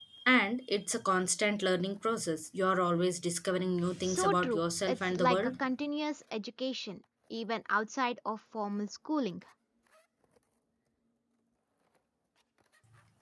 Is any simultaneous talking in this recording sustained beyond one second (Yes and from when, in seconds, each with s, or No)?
Yes, from 4.0 s